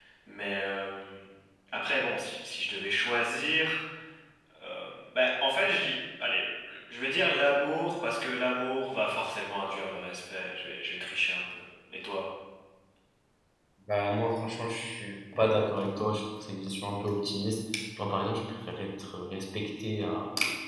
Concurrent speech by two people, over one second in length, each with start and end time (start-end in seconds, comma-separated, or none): none